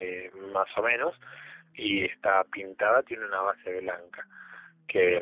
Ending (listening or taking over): listening